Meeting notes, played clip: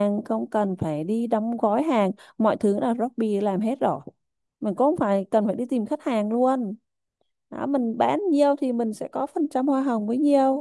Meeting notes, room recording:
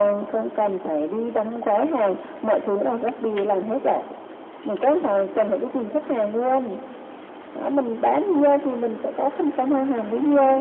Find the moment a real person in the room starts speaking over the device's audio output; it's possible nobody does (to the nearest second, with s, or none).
none